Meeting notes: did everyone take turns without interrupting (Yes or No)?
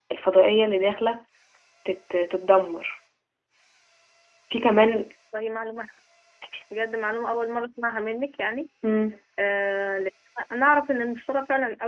Yes